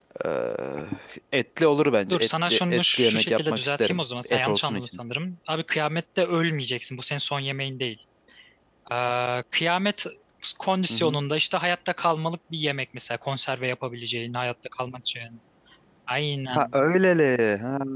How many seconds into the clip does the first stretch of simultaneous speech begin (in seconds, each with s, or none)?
2.1 s